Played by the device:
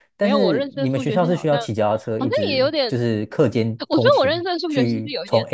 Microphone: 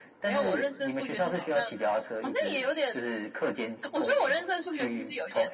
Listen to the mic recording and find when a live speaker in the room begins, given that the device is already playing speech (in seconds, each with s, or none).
none